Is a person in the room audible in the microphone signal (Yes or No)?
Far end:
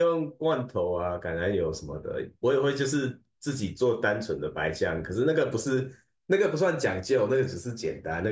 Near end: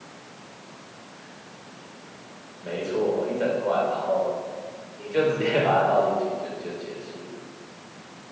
Yes